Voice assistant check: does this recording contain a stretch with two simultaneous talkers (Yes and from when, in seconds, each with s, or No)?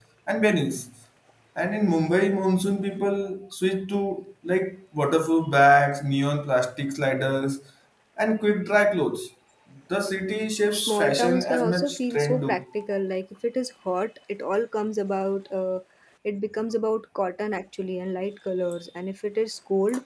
Yes, from 10.7 s